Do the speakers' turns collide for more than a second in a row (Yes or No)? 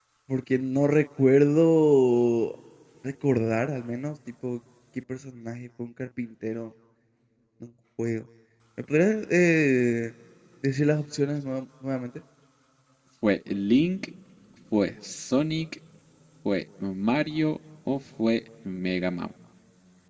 No